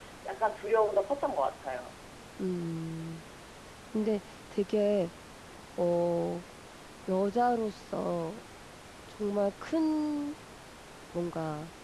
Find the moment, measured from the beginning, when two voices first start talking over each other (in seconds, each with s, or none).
none